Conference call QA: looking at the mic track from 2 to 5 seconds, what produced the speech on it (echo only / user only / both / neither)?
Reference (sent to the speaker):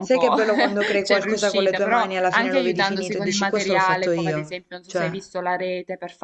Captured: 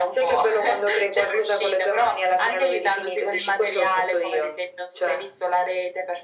echo only